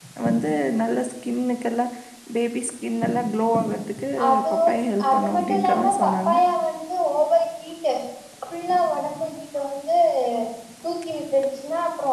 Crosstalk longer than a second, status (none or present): present